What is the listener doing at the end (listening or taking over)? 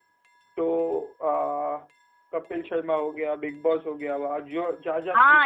taking over